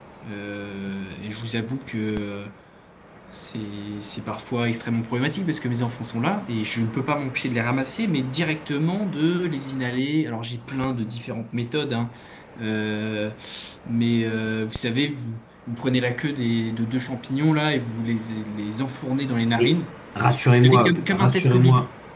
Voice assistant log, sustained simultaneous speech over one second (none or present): present